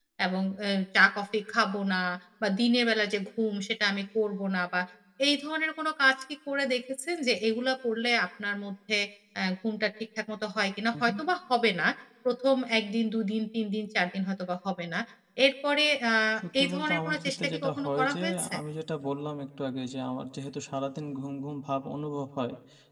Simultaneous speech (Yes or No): Yes